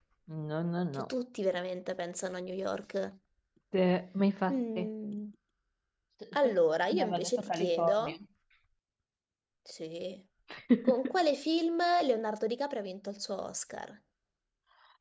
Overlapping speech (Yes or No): Yes